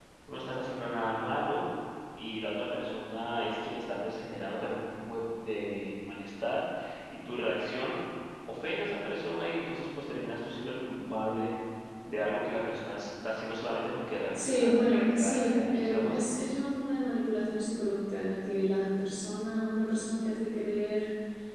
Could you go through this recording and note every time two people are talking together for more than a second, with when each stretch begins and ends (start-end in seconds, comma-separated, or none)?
14.3-16.3